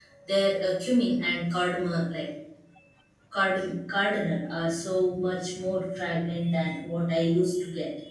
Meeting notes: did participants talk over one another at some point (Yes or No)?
No